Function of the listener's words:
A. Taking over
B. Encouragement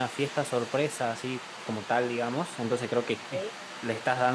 B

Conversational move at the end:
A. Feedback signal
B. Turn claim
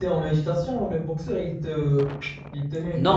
B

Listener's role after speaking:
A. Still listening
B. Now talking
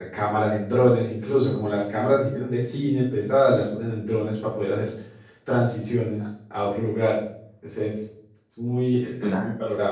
A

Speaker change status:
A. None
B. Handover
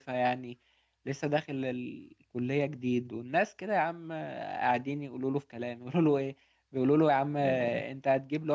A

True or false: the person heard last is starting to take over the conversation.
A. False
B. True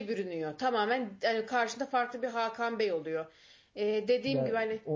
B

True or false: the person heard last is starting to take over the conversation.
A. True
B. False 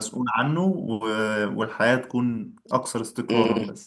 A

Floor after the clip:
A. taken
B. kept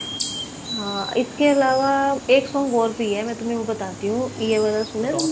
B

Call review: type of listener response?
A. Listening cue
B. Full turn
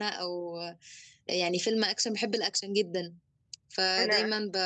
A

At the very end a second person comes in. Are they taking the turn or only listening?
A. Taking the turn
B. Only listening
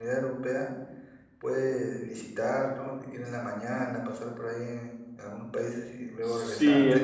A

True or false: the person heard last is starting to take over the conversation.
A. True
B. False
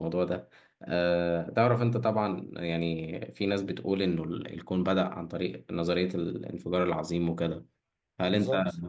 B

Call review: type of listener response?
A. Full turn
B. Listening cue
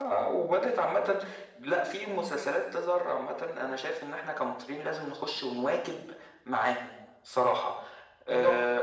A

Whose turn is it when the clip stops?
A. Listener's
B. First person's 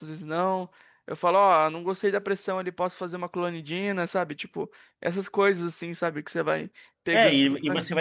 A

